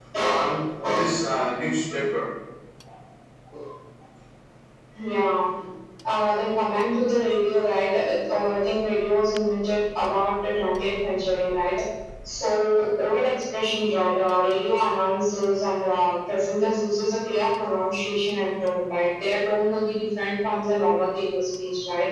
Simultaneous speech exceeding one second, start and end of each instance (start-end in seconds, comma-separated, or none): none